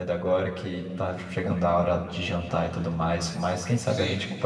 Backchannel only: Yes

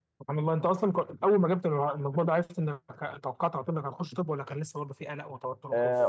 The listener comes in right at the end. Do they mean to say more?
Yes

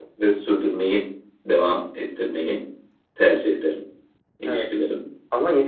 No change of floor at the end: No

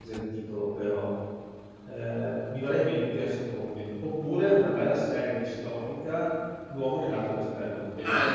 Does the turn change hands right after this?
Yes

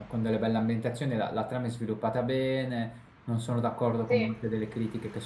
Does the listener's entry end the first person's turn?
No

